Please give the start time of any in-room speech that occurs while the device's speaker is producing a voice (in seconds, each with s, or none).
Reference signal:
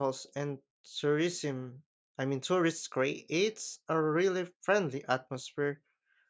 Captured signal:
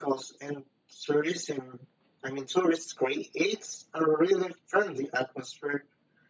none